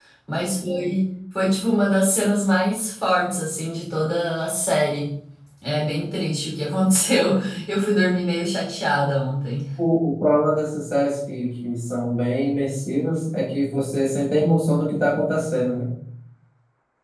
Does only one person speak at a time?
Yes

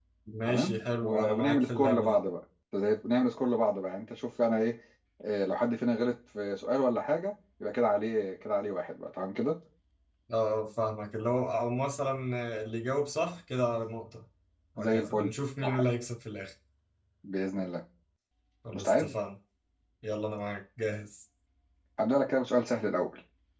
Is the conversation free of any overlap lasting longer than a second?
No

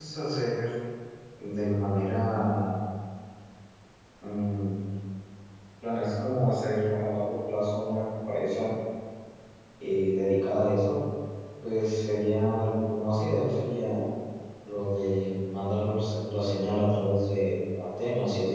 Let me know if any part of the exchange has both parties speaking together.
No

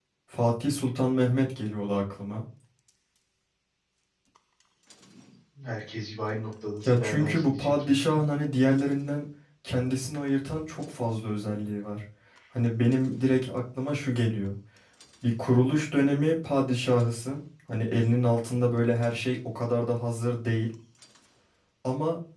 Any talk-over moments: Yes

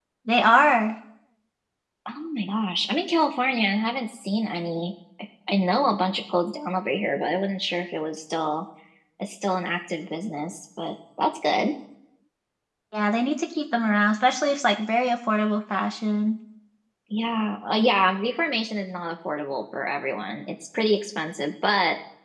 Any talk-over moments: No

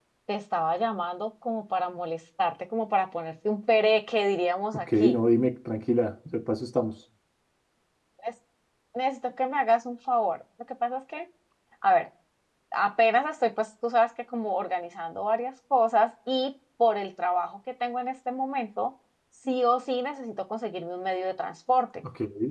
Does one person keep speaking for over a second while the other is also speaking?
No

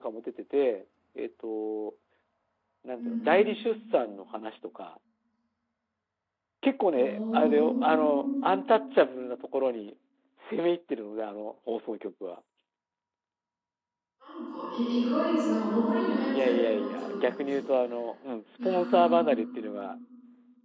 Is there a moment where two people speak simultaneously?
Yes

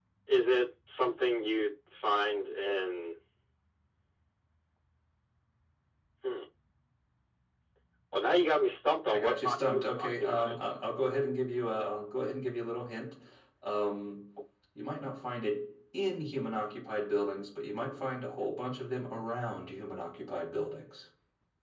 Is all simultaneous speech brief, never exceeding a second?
No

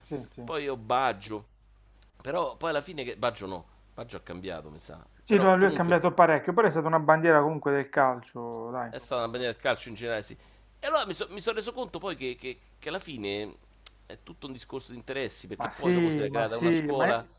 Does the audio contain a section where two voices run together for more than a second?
Yes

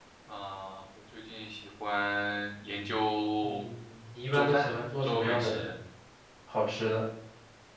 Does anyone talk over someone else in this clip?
Yes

